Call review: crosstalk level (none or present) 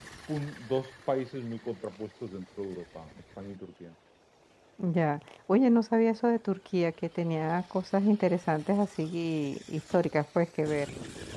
none